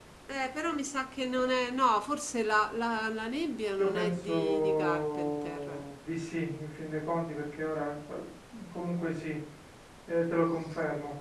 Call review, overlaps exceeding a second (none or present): present